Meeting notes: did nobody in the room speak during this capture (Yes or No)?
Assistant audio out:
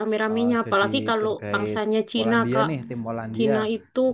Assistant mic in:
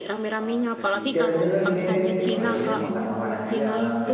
No